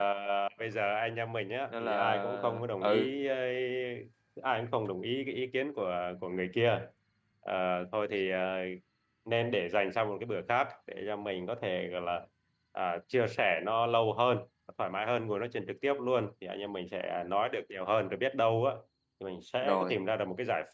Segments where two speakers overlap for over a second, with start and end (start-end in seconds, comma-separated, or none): 1.7-3.1